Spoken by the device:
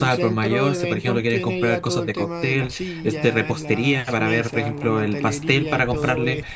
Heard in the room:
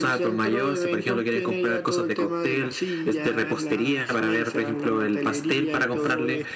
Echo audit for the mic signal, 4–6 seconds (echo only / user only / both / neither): echo only